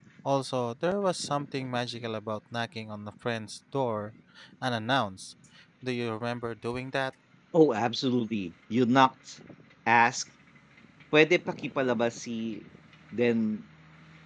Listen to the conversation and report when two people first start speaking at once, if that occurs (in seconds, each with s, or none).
none